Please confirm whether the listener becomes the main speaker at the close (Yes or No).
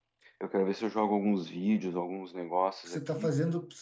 Yes